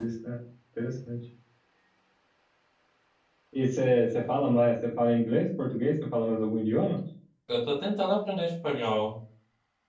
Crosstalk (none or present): none